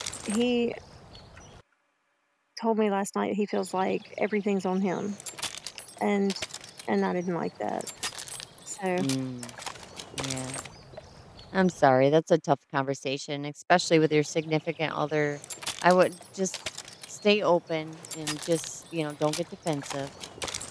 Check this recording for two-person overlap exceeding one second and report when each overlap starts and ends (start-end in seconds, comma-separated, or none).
none